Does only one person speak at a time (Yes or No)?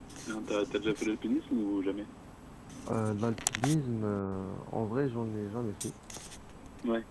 Yes